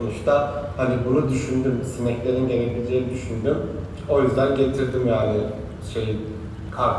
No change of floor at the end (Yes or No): No